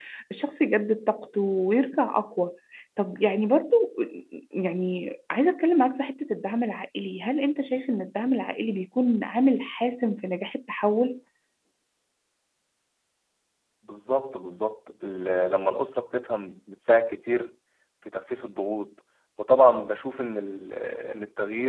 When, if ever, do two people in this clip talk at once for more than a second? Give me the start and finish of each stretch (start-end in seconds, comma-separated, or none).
none